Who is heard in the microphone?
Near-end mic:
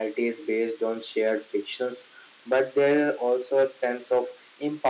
user only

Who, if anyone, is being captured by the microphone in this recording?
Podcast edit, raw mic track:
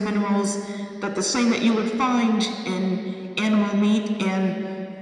echo only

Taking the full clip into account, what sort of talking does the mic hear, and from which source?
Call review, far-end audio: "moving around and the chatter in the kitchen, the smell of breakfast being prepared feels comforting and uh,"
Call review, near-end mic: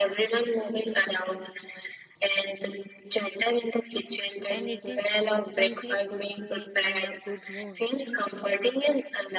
both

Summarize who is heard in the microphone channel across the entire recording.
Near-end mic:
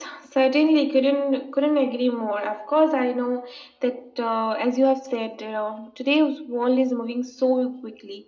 echo only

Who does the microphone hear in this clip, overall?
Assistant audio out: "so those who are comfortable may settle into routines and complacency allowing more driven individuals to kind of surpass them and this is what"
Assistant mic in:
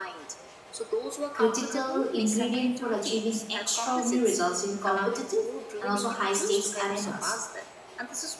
both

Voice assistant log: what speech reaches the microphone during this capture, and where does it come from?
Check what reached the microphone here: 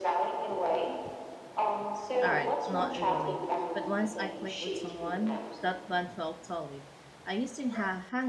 both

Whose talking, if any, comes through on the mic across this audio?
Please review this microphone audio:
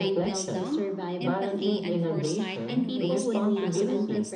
both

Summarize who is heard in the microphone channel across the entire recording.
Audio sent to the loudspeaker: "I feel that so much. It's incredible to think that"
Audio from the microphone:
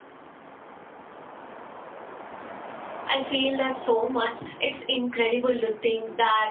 echo only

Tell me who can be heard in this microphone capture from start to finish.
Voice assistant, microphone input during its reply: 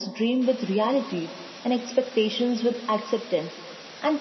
echo only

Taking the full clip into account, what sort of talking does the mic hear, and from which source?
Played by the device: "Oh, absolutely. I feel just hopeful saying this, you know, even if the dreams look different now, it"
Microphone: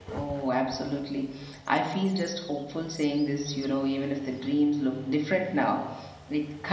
echo only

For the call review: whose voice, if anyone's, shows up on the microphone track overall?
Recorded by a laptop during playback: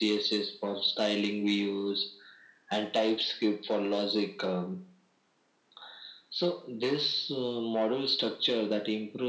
echo only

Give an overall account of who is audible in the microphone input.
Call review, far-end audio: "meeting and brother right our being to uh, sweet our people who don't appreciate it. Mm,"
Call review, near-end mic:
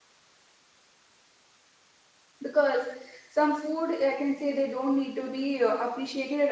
user only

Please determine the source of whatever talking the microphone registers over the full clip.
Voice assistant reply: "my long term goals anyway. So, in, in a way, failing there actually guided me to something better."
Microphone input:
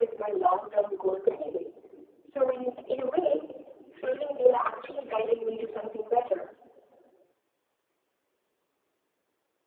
echo only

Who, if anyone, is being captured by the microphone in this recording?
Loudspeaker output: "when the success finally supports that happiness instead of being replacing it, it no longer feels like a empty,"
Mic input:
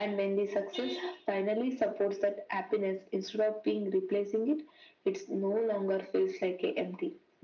echo only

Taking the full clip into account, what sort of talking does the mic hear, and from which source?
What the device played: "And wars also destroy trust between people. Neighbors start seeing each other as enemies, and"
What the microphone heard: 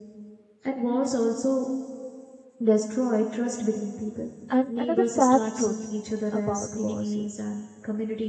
both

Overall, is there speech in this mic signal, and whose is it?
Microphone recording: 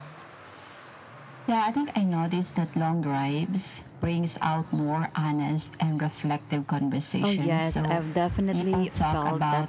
both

